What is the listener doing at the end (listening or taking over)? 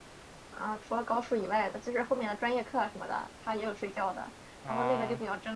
listening